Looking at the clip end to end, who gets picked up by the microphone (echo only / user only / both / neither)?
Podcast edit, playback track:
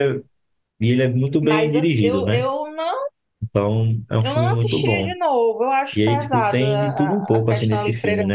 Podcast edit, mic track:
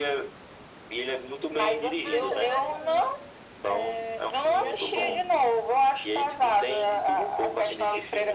both